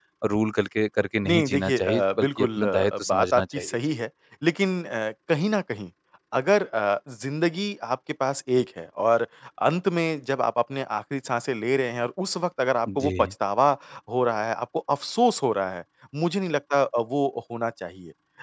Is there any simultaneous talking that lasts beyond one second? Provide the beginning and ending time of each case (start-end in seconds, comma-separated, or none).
1.3-3.8